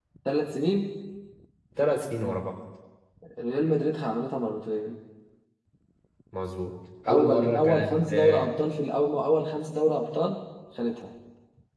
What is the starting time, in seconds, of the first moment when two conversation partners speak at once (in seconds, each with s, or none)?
7.1 s